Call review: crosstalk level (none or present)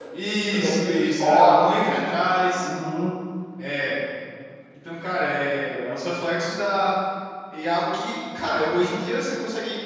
present